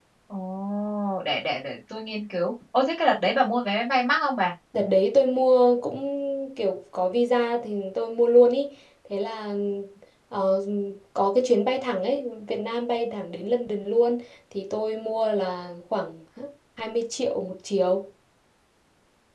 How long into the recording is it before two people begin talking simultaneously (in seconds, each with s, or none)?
none